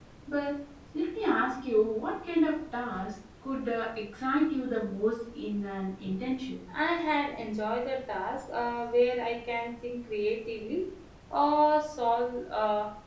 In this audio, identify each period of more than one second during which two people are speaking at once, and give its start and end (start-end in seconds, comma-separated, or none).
none